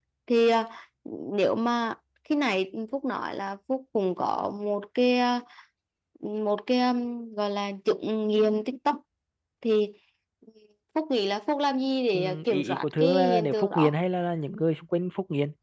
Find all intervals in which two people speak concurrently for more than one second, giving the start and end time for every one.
12.1-13.9

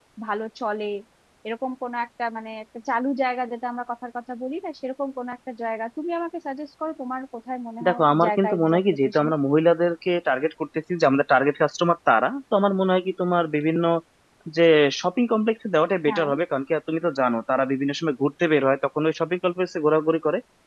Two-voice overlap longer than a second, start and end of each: 7.8-9.3

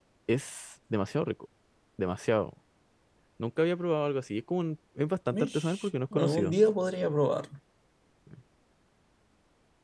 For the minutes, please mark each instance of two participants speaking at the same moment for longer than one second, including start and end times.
5.3-6.6

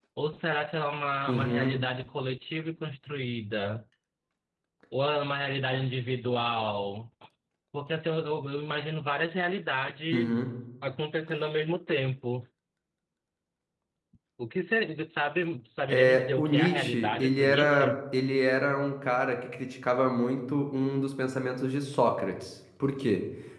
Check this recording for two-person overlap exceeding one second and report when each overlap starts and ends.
15.9-17.9

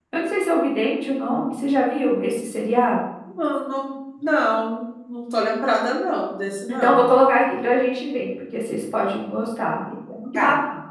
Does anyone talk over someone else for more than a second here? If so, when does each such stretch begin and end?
none

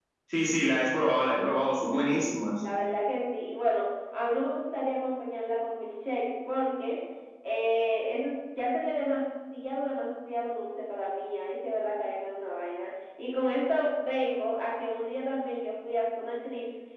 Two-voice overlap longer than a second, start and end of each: none

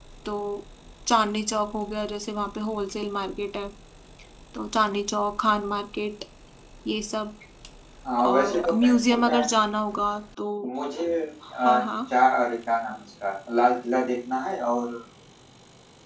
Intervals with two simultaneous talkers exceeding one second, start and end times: 8.2-9.4

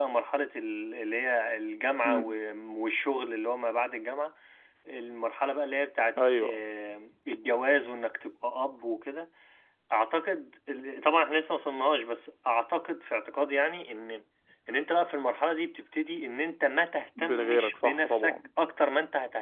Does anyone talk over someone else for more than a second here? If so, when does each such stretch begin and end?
17.2-18.4

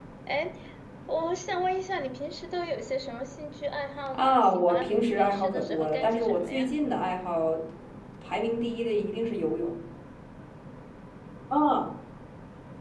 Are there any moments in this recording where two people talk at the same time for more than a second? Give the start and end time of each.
4.1-6.7

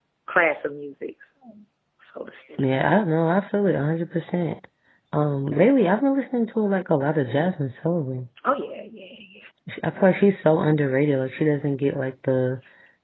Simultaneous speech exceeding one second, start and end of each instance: none

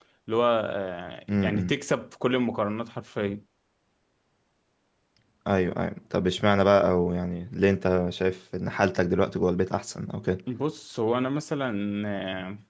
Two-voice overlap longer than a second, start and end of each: none

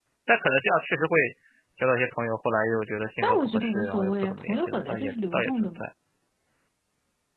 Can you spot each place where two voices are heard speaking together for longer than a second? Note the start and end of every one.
3.2-5.8

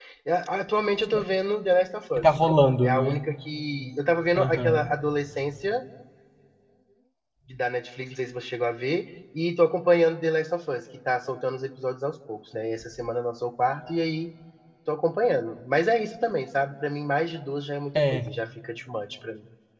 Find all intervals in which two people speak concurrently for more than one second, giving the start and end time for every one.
none

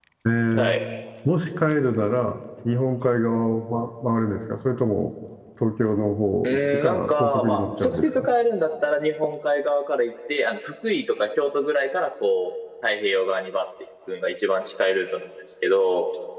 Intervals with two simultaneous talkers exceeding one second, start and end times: 6.4-8.3

